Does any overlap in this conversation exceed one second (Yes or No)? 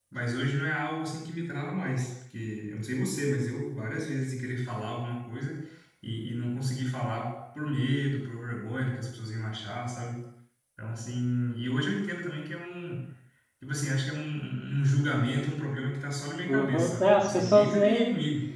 Yes